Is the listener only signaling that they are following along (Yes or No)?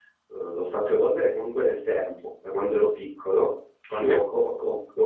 Yes